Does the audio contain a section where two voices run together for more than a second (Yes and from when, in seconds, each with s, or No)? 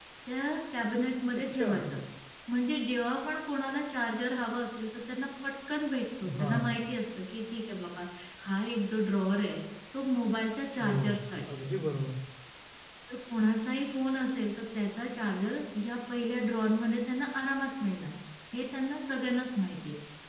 No